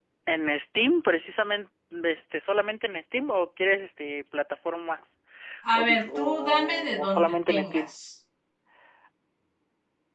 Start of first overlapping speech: 6 s

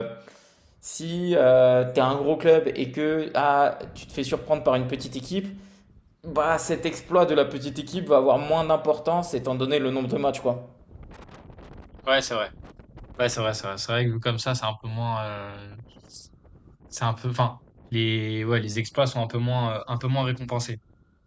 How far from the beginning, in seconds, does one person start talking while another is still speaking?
none

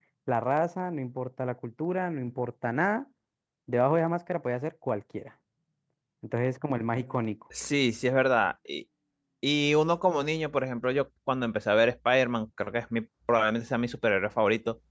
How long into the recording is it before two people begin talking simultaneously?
none

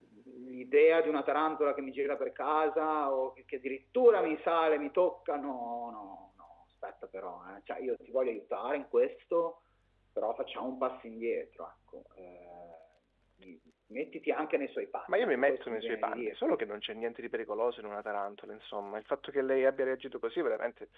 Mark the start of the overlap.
15 s

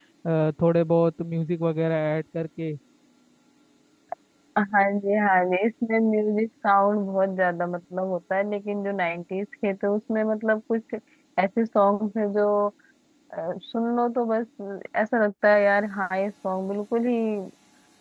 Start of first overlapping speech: none

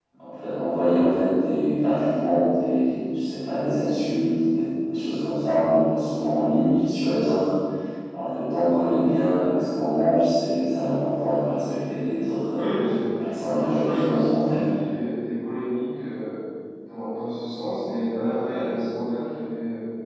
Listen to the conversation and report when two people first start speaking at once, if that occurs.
13 s

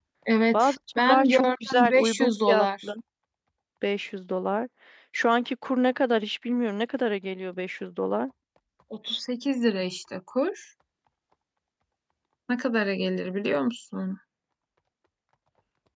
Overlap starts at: 1 s

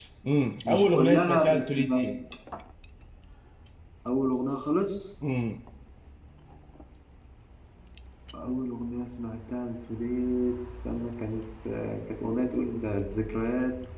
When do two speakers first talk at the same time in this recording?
1 s

